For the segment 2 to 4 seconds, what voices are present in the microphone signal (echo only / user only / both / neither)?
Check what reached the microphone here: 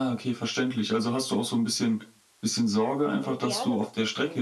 both